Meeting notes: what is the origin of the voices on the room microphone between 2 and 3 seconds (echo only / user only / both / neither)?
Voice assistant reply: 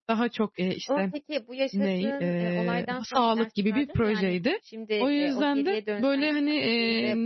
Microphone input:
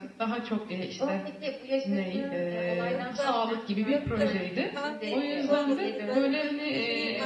both